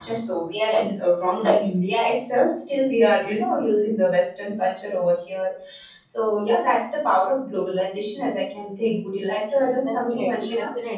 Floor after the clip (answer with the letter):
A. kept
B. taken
B